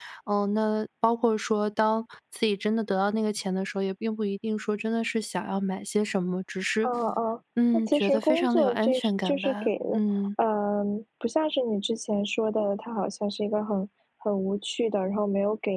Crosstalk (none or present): present